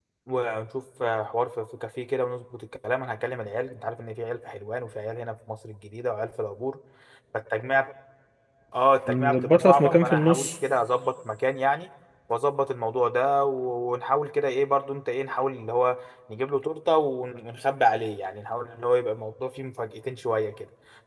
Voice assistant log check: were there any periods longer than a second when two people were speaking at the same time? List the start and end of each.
9.1-10.5

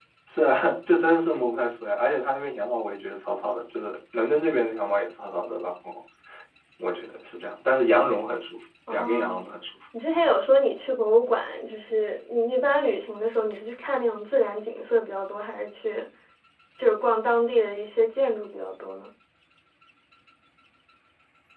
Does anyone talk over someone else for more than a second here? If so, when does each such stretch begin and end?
none

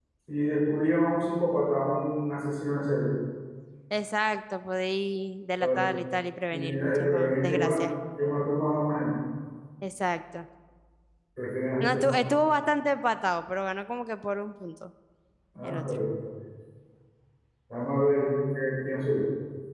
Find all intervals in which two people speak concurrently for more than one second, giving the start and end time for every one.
6.5-7.9

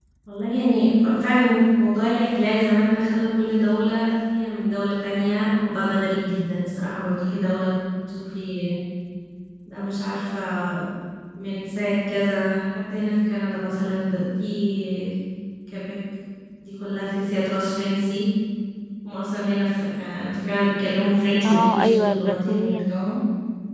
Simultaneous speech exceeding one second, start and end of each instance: 21.4-23.0

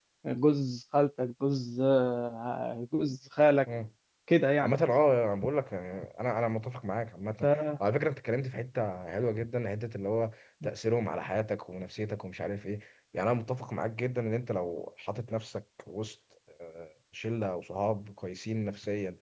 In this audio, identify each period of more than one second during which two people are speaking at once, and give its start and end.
none

